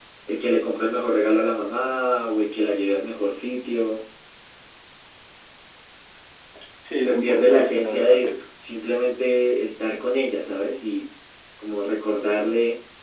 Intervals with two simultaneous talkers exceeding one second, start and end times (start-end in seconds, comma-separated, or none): 7.0-8.3